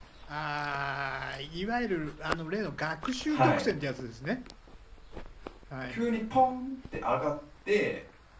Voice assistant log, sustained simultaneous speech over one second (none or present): none